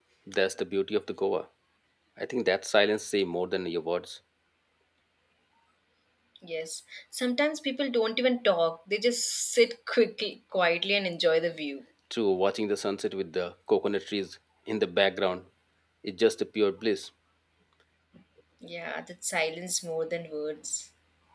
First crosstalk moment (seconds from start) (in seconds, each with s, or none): none